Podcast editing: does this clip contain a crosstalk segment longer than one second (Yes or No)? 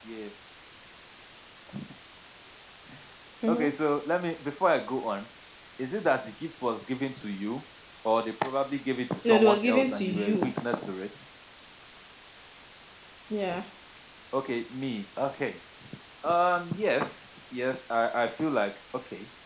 Yes